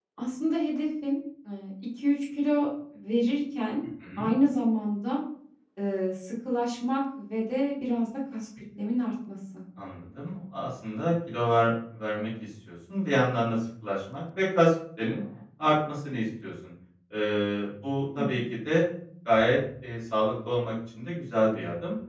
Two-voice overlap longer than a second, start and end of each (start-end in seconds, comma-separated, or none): none